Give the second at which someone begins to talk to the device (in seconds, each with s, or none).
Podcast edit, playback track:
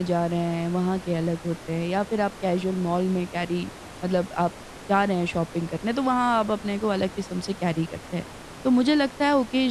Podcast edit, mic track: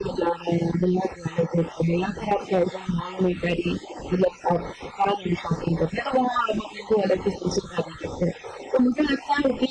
none